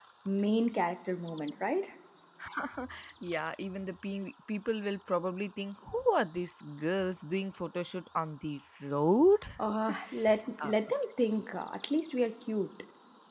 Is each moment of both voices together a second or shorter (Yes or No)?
Yes